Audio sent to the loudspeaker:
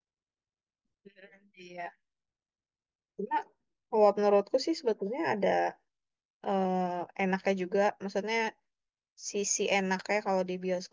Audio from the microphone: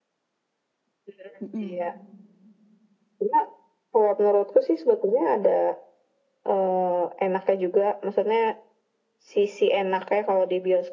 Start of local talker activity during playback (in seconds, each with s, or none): 1.4 s